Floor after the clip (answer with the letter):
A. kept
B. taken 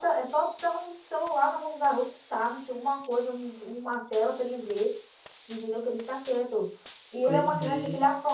A